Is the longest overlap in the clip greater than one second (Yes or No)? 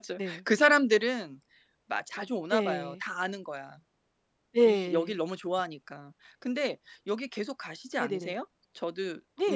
No